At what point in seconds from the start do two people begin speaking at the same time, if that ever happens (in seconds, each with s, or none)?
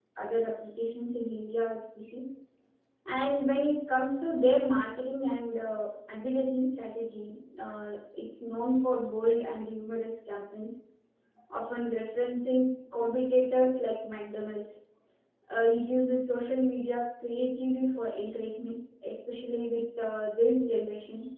none